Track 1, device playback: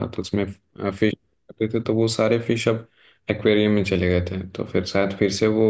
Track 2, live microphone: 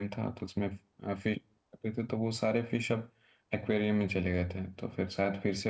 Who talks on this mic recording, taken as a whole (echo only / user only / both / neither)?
echo only